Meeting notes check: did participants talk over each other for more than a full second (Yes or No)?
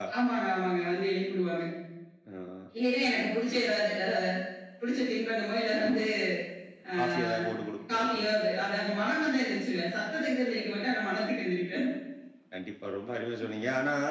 No